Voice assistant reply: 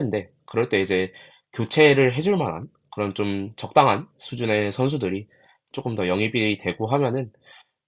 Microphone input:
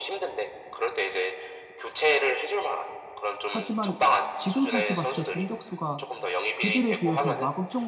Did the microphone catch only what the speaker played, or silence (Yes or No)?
No